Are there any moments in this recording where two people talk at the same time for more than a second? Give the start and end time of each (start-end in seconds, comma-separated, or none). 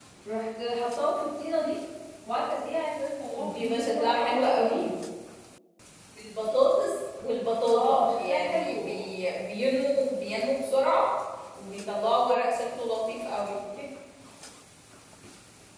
3.4-4.9, 7.7-8.9